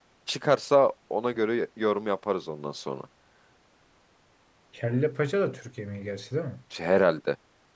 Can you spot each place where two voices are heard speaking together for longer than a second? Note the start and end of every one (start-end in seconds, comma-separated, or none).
none